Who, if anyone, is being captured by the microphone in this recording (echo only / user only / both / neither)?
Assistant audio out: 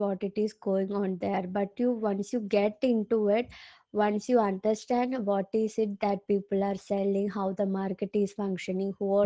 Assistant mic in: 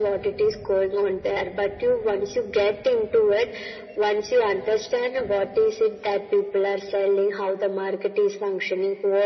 echo only